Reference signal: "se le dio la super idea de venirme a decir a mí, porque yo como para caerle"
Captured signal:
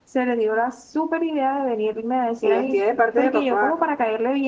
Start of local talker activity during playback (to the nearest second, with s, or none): 2 s